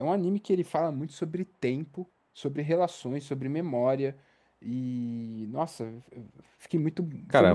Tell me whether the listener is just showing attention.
No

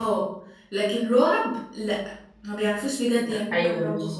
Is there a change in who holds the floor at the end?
Yes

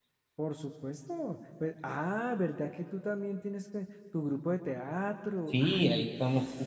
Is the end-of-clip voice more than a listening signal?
Yes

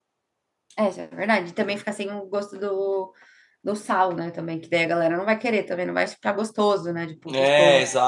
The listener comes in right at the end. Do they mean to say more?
Yes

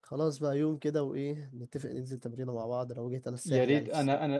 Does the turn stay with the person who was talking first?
No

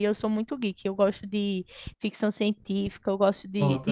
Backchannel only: Yes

